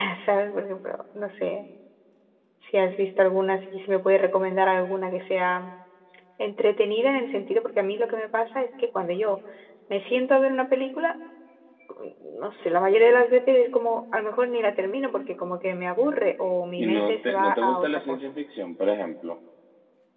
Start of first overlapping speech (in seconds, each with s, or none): 16.8 s